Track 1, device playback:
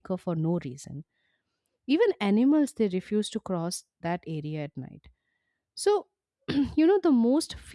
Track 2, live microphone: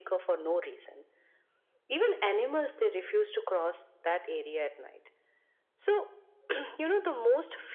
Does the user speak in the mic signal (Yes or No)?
No